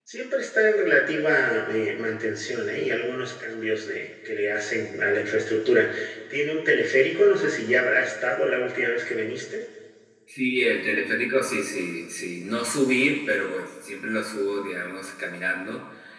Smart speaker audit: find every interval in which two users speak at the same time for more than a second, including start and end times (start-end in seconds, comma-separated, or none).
none